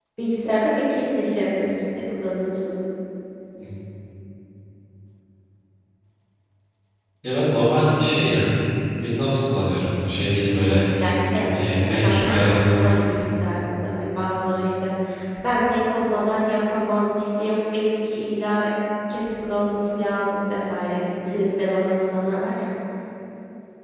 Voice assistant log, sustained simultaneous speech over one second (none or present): present